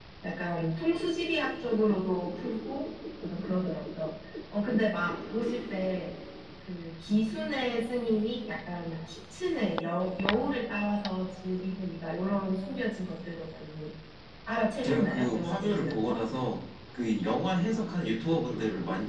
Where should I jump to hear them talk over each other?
14.8 s

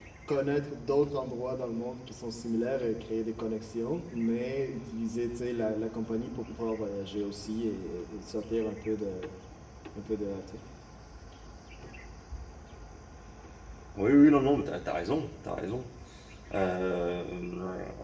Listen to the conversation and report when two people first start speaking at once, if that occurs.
none

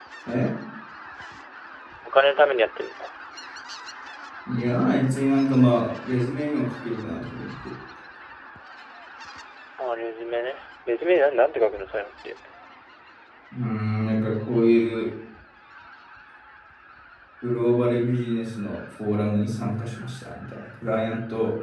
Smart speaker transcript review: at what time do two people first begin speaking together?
none

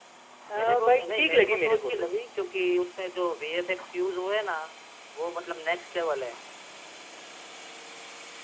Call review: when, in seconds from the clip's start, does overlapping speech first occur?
0.5 s

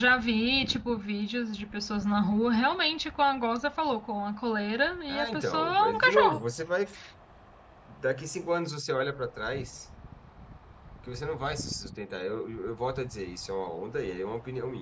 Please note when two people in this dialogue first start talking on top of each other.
5.1 s

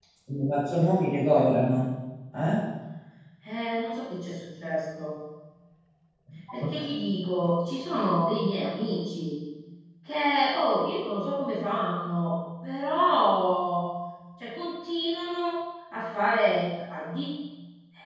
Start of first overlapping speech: none

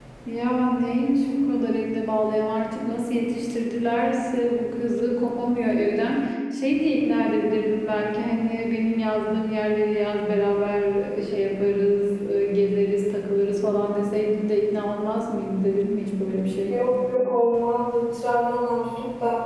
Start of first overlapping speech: none

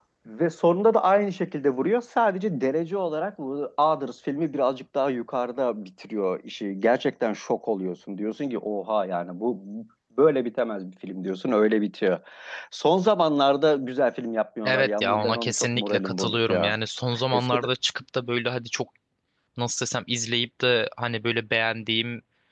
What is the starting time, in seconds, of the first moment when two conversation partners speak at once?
14.7 s

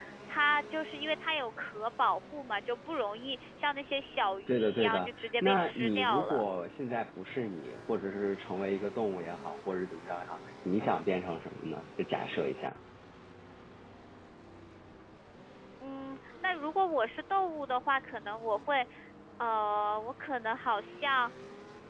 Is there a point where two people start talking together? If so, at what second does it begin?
4.5 s

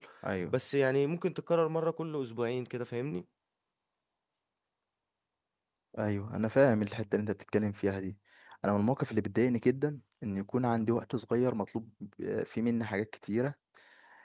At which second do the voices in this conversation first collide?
none

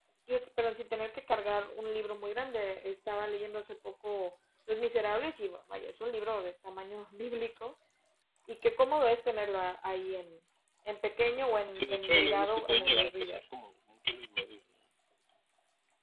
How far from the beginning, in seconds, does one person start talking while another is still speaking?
11.7 s

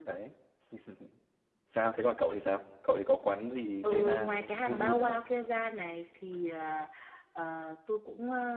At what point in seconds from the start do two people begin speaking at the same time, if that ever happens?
3.8 s

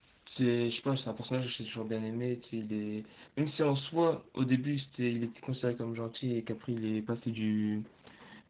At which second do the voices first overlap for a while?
none

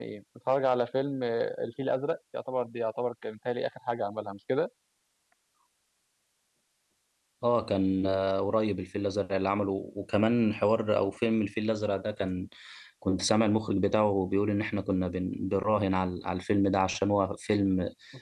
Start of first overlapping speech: none

